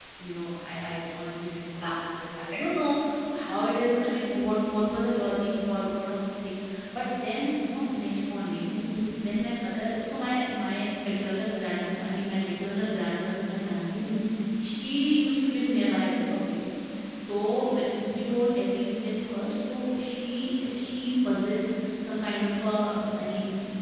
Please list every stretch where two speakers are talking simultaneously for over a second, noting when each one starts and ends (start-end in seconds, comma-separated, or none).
none